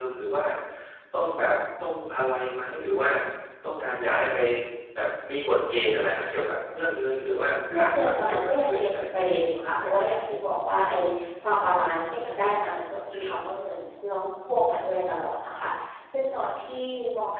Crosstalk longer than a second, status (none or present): present